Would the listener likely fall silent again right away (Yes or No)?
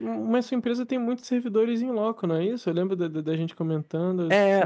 No